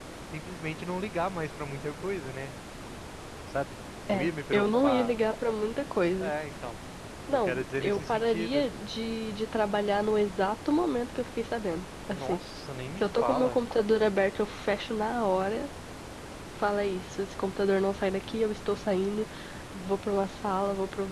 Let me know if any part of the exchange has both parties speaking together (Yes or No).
Yes